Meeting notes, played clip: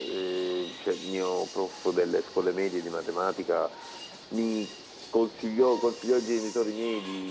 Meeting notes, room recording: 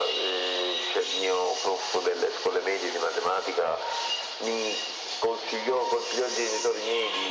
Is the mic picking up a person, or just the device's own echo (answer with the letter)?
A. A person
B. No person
B